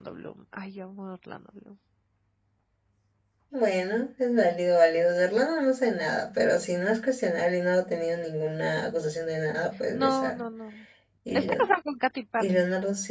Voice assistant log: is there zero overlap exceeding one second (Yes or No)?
Yes